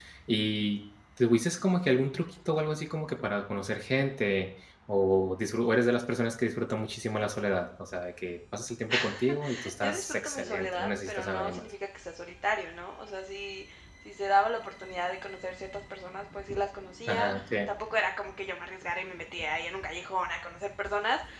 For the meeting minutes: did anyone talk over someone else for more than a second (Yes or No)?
Yes